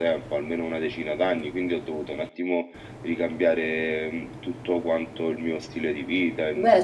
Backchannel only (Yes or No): No